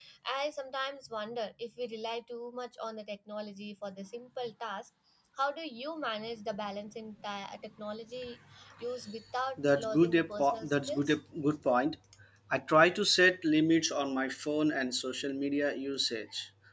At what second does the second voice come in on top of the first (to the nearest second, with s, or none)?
10 s